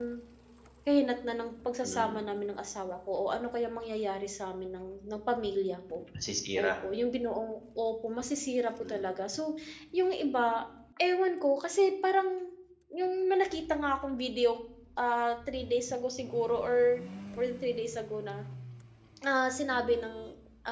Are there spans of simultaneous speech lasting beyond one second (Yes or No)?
No